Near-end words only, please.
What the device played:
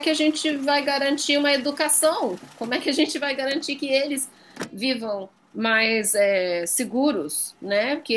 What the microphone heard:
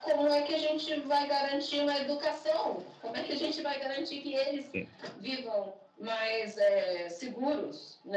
sim,

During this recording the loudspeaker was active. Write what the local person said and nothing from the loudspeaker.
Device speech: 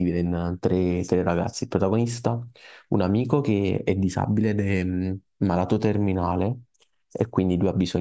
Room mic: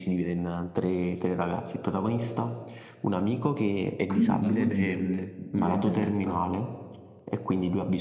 Quindi la bugia div- diventa realtà.

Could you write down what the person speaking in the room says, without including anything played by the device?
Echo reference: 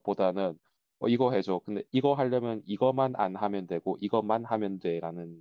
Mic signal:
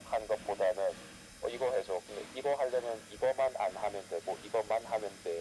none

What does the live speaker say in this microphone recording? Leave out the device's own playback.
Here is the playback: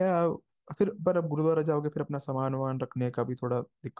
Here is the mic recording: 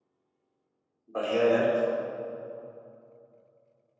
बढ़िया है यार

